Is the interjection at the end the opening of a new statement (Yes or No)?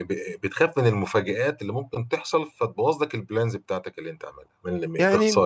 Yes